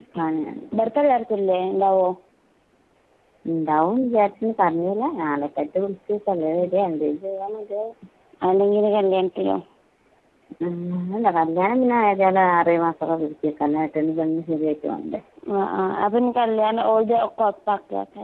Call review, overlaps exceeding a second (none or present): none